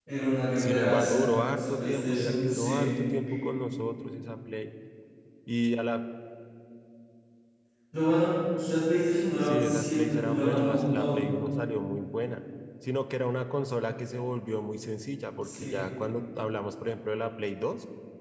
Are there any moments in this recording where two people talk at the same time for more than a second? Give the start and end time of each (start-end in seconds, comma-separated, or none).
0.5-2.9, 9.4-11.2